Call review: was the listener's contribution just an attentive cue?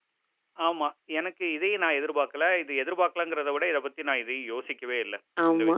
No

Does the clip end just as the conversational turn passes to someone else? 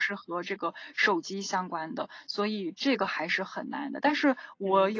No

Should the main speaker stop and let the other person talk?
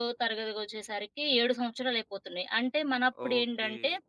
No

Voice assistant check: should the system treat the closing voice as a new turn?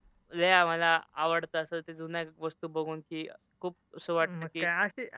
Yes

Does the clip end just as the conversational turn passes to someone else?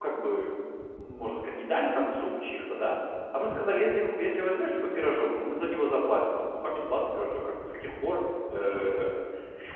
No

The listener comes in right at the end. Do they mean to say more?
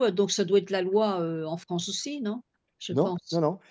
Yes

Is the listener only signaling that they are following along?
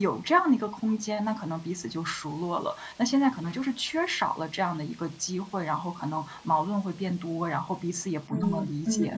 No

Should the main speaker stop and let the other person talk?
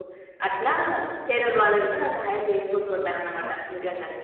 Yes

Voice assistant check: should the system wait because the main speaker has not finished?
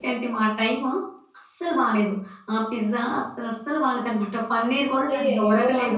No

